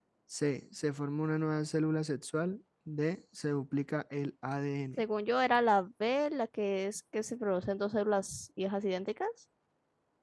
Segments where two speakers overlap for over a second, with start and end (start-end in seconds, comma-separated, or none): none